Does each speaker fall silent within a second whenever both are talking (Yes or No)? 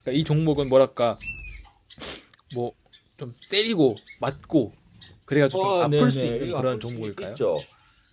No